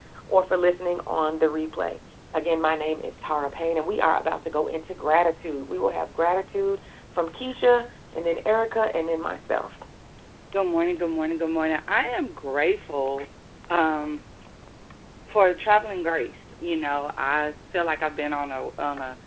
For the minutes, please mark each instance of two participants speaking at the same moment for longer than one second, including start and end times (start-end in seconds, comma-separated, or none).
none